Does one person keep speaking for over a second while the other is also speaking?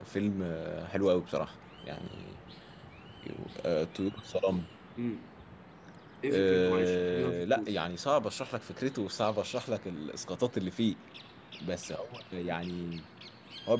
Yes, from 6.3 s

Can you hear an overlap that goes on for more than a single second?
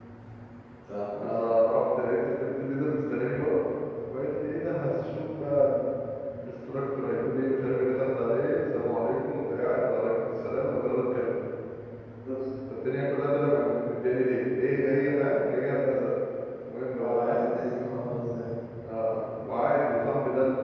No

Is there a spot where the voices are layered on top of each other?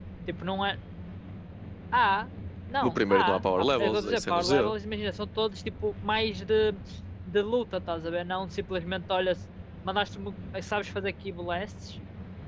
Yes, from 2.8 s

